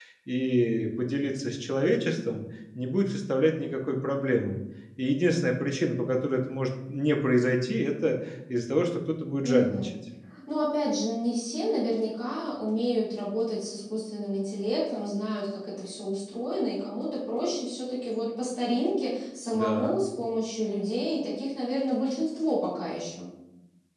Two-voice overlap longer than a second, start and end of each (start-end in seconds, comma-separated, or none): none